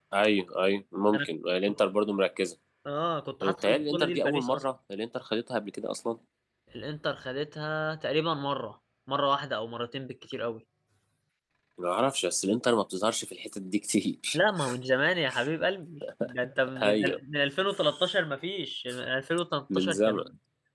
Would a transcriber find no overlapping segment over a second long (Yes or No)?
No